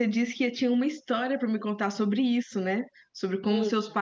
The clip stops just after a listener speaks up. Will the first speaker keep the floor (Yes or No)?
Yes